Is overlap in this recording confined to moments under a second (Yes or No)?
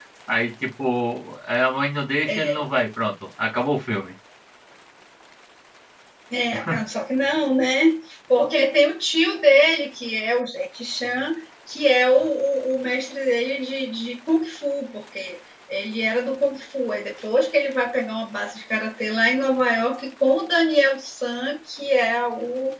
Yes